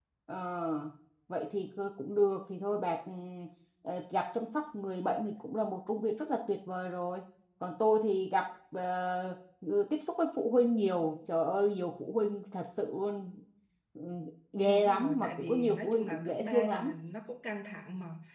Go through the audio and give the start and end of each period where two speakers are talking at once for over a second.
14.6-17.0

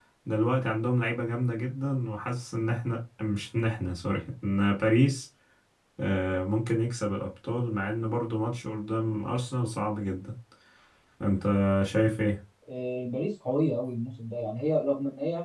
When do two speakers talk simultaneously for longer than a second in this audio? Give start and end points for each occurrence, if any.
none

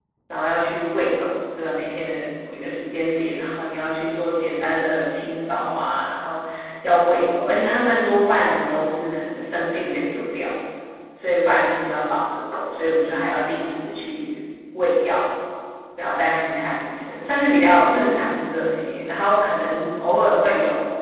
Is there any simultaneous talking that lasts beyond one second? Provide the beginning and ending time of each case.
none

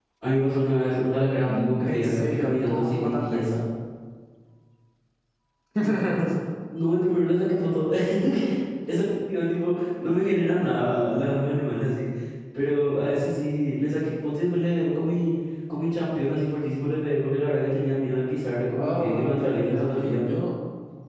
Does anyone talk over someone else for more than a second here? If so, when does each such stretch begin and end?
1.5-3.4, 18.8-20.4

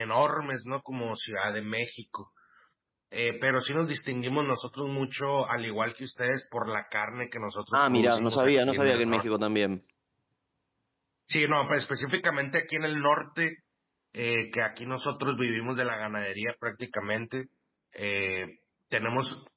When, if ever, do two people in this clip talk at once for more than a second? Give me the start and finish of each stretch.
7.7-9.3

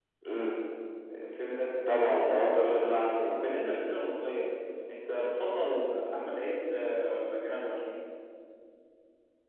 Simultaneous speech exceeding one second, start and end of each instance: 1.9-3.5

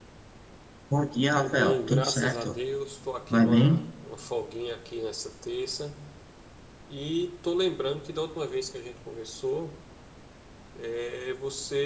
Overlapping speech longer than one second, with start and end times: 1.4-2.6

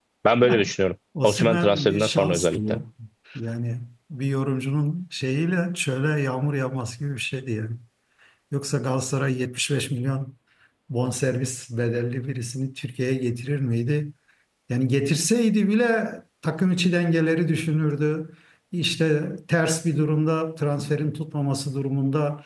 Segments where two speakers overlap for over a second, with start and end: 1.2-2.6

